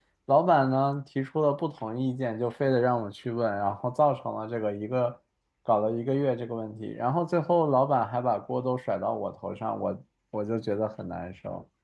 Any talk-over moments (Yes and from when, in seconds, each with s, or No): No